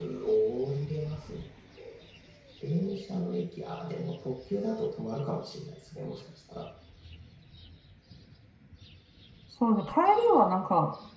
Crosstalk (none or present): none